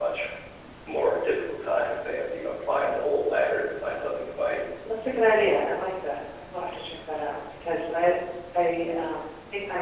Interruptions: none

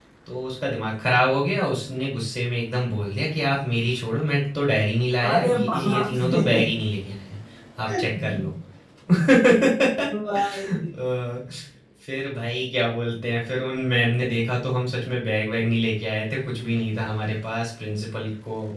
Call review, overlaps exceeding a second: present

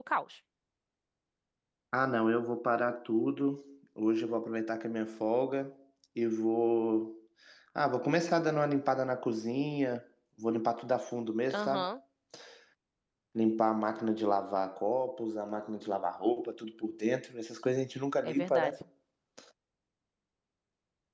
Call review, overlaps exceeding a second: none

